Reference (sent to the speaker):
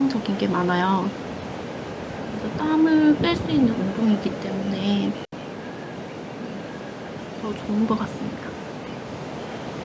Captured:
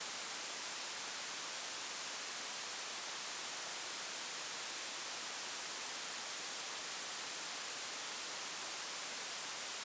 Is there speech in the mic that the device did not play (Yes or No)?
No